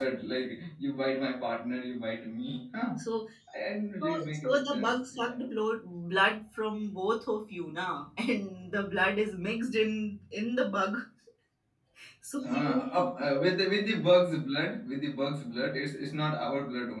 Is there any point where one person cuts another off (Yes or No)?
Yes